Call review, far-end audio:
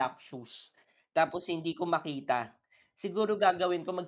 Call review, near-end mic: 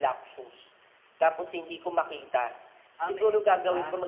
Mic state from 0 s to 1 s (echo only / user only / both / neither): echo only